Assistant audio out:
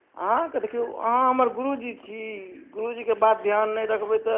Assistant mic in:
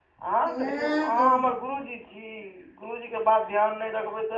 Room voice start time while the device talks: 0 s

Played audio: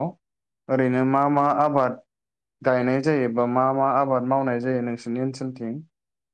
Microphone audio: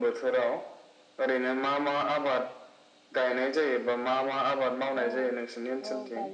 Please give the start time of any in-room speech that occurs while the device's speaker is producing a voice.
5 s

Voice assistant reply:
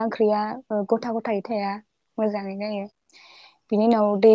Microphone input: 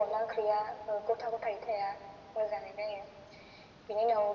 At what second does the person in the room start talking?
none

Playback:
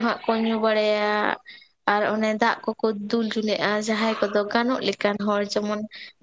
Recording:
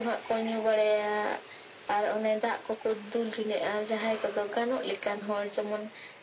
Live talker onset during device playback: none

